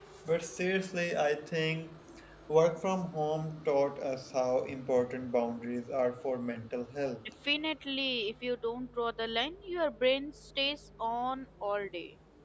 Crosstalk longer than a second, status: none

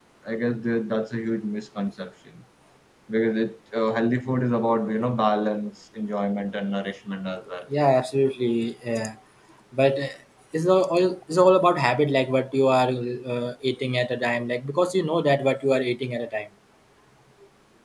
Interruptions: none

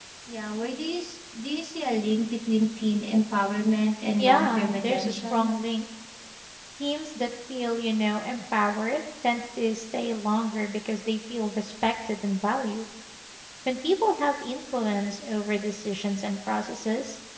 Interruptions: present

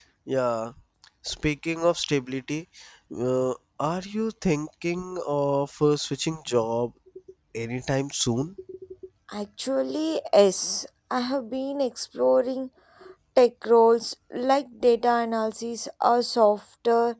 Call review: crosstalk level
none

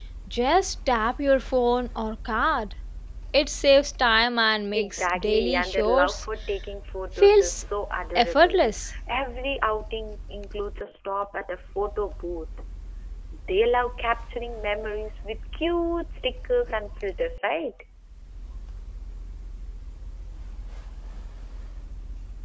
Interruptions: present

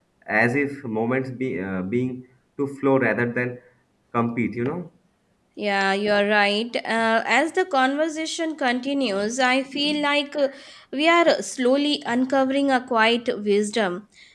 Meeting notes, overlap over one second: none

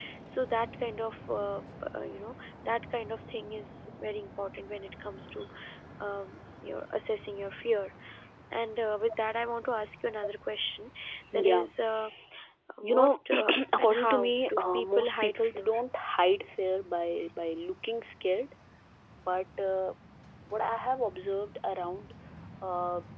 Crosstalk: present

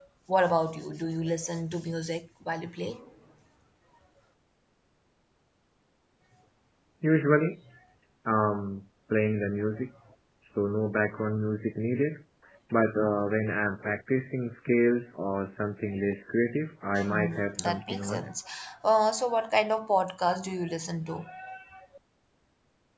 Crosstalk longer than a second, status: present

